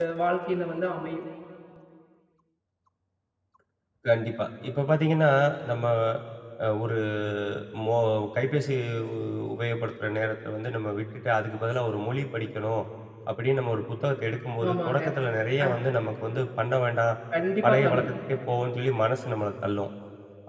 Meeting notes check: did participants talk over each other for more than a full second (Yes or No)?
No